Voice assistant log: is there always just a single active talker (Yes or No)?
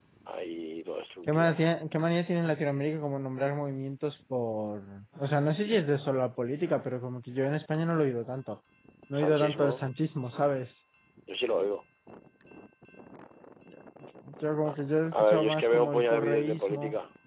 No